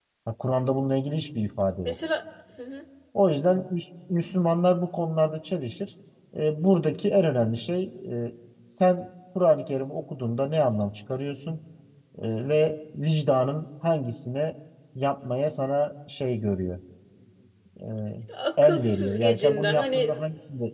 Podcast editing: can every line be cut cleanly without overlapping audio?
No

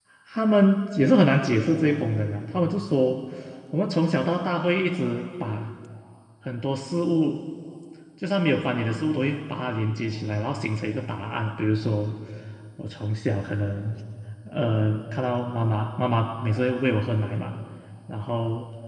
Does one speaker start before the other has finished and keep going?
No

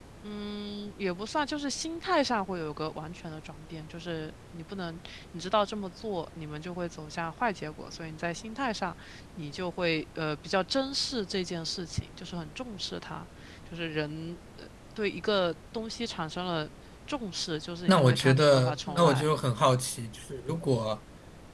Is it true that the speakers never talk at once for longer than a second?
No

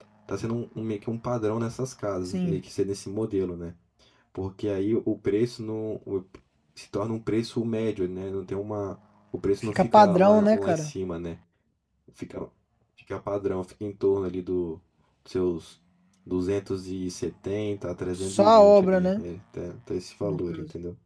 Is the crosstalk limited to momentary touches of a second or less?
No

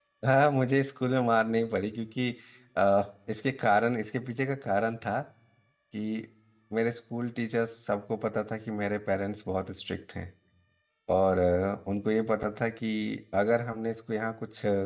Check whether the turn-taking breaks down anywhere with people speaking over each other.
No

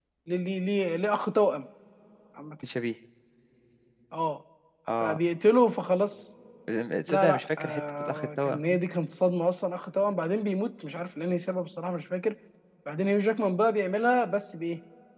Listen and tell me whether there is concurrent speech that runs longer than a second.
Yes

